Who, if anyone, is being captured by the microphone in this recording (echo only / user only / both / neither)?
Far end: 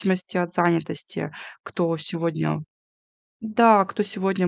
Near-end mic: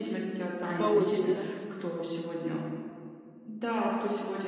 both